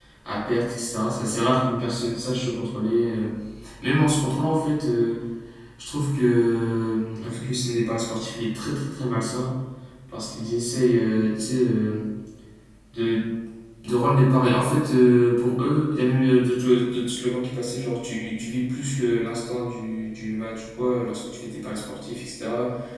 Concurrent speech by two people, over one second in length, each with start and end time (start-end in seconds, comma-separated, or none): none